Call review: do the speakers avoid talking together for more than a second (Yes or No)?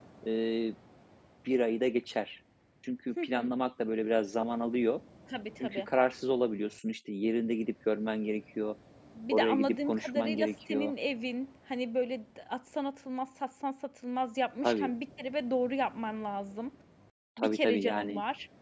No